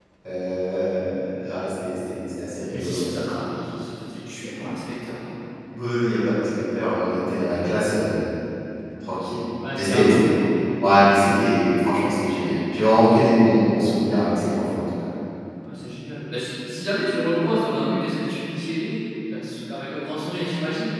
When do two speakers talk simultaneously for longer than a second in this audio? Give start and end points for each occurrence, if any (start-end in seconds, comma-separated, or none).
none